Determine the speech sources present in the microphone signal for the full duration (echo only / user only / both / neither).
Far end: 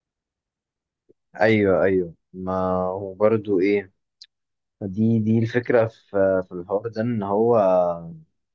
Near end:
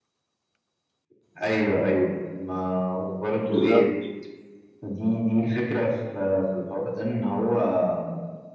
both